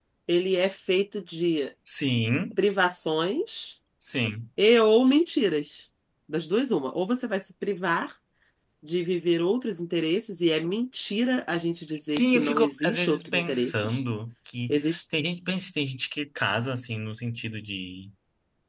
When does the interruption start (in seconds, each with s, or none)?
12.1 s